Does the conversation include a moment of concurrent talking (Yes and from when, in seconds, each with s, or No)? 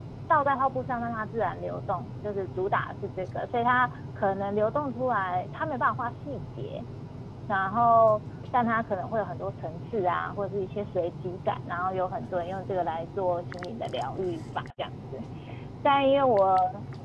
No